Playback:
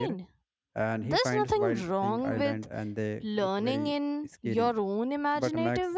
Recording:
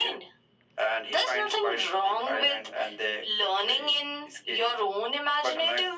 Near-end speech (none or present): none